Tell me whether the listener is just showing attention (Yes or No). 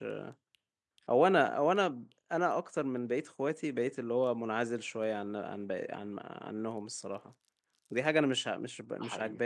Yes